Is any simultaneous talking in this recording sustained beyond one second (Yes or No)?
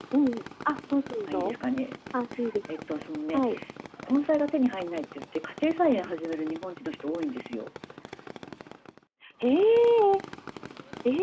No